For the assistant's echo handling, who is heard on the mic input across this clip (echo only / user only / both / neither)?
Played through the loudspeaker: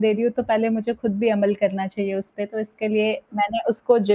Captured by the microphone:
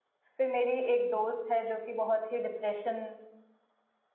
user only